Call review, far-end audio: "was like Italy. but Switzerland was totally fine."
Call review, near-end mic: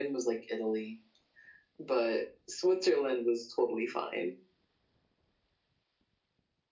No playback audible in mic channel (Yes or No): No